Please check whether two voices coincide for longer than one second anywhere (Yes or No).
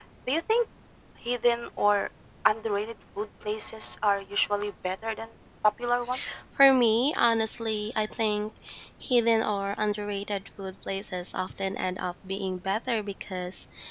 No